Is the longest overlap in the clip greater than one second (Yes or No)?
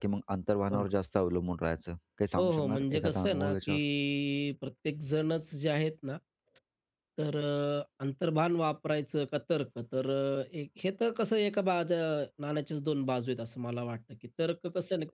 Yes